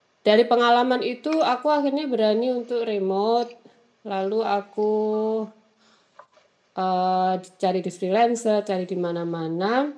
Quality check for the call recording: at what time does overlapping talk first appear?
none

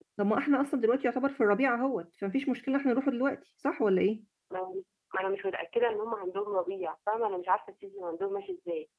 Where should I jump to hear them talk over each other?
none

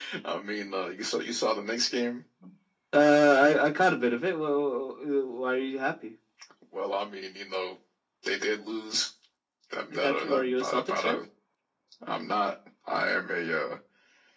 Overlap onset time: 9.9 s

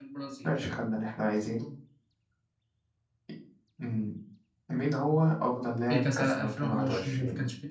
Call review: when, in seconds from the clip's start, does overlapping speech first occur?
5.9 s

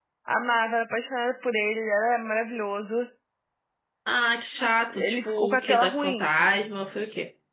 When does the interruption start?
4.9 s

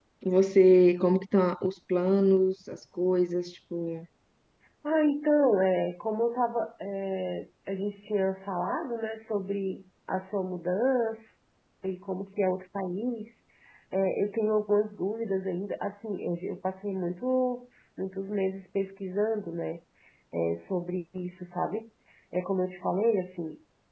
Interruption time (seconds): none

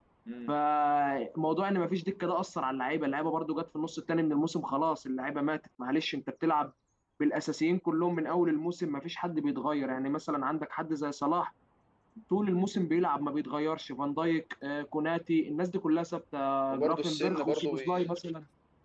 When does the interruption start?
16.7 s

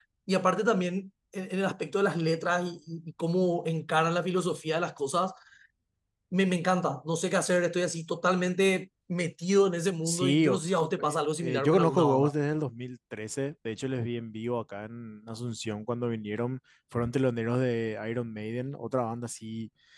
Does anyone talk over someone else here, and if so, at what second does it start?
10.0 s

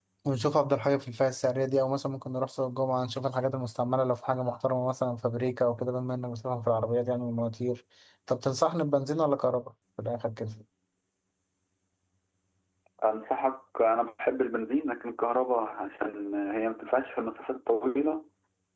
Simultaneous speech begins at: none

